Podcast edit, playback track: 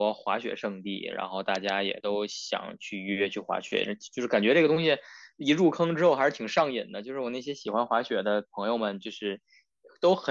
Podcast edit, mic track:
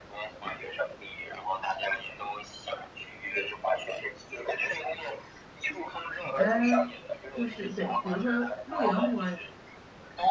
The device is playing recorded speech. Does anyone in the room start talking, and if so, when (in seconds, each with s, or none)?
6.3 s